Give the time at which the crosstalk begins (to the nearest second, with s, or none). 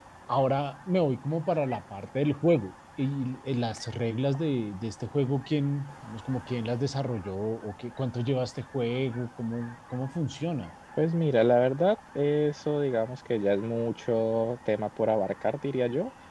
none